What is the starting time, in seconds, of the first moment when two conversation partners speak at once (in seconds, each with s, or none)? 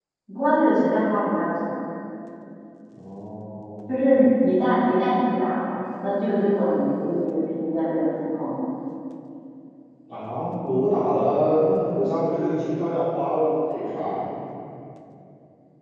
none